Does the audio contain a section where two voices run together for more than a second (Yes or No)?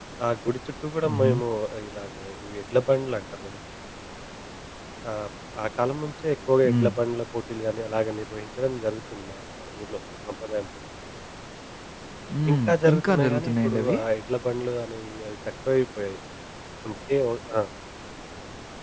Yes